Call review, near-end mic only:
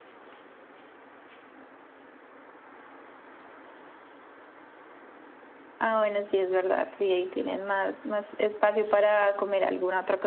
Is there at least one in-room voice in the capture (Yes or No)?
Yes